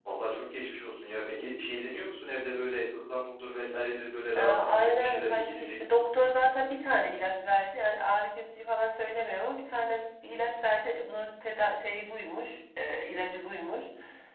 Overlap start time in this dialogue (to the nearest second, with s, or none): 4 s